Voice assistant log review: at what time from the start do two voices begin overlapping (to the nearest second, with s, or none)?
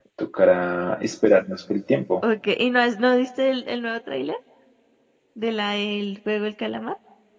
none